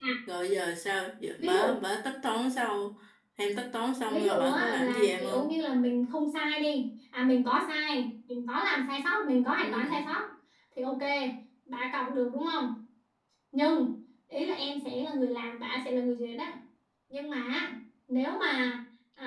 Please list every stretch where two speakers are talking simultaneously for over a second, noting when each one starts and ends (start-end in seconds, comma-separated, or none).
4.1-5.5